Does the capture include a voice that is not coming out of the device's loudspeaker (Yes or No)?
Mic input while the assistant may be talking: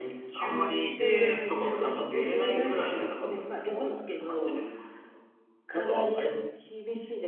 Yes